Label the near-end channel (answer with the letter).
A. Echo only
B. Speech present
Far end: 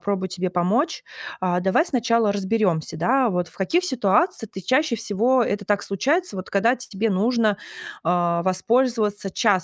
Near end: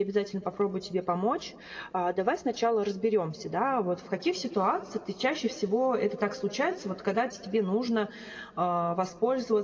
A